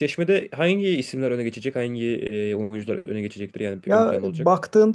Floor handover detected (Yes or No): Yes